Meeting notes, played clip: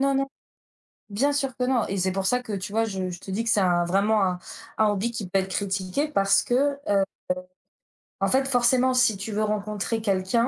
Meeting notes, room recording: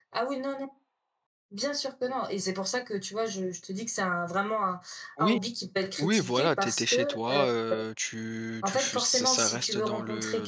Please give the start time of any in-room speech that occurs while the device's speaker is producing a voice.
5.2 s

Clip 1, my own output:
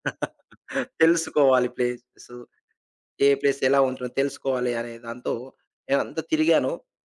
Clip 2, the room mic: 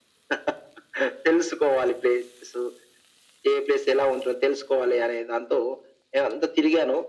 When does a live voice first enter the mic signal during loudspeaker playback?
none

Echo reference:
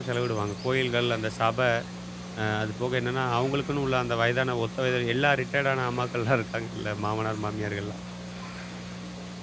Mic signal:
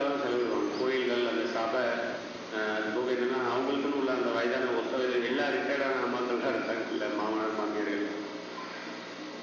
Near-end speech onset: none

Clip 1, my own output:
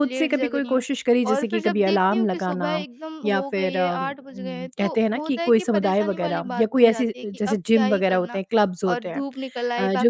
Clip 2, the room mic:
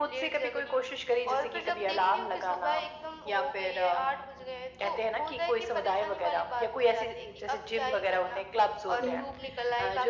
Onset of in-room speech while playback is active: 8.9 s

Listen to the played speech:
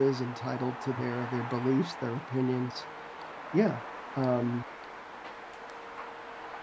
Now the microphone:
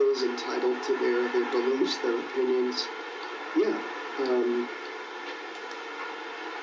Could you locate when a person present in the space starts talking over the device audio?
none

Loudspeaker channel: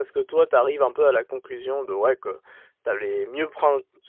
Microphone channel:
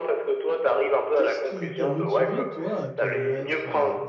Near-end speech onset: 1.1 s

